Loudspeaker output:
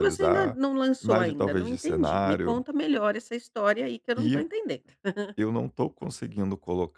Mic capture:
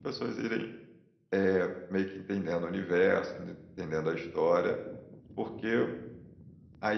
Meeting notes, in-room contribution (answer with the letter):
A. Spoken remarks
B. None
A